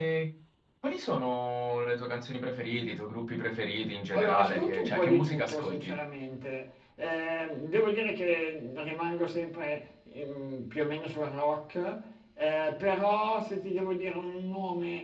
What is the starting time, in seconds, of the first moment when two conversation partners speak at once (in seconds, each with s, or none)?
4.1 s